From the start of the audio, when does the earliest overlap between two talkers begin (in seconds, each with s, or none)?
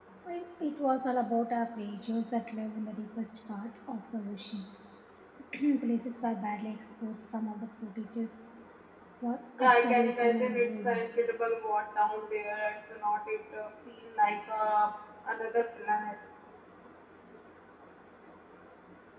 9.6 s